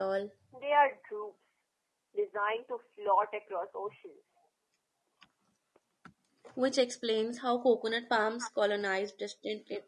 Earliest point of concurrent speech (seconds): none

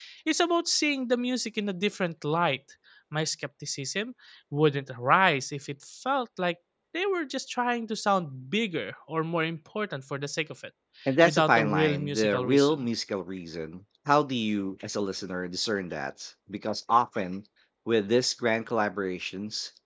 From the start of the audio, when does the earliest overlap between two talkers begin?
11.2 s

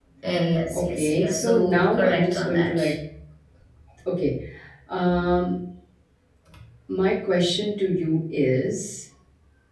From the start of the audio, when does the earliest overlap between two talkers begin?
0.7 s

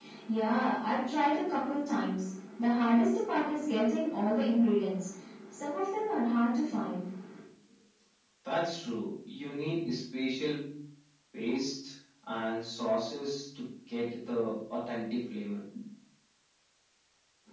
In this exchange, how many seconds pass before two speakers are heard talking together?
none

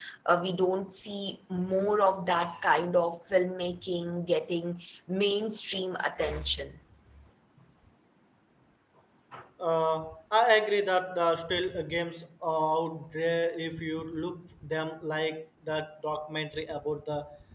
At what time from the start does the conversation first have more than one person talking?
none

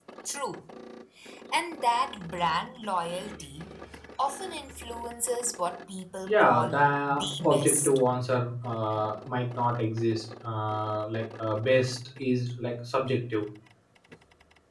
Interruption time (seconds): 6.2 s

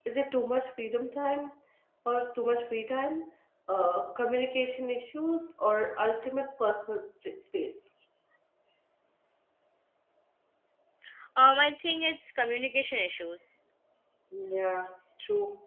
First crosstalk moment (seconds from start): none

